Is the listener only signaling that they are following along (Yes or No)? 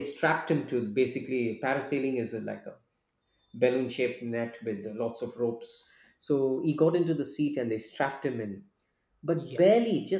Yes